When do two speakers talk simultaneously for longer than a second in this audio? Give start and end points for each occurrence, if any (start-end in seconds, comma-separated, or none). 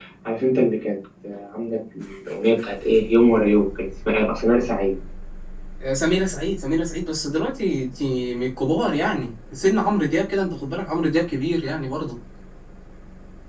none